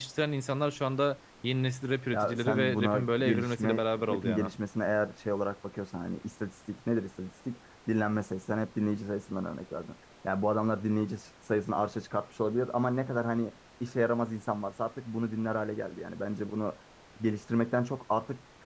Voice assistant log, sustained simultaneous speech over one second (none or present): present